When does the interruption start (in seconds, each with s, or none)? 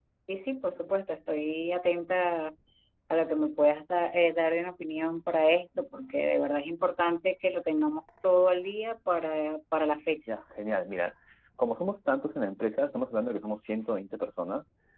none